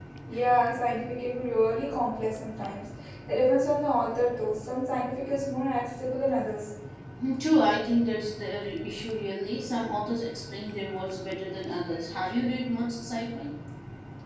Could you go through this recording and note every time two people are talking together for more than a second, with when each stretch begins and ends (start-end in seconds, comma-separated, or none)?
none